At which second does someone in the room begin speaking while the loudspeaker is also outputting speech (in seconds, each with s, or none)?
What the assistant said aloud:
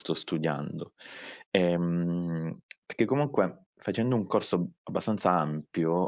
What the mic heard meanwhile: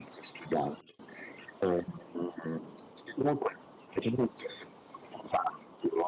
none